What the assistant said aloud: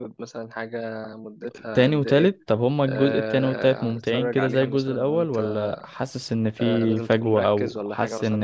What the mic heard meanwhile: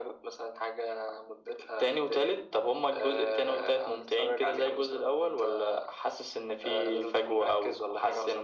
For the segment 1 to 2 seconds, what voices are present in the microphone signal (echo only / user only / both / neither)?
echo only